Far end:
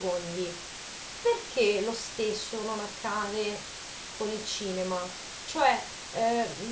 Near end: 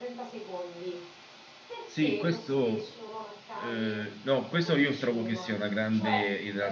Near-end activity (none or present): present